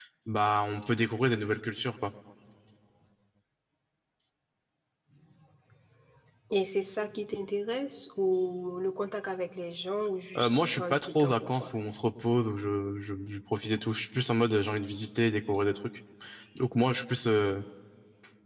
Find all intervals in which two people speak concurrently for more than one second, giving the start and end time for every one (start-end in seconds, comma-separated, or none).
10.4-11.7